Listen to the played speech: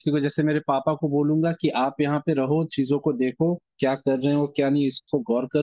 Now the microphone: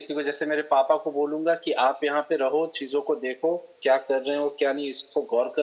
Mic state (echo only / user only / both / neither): echo only